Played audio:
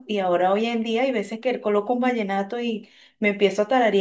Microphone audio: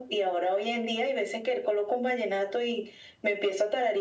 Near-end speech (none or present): none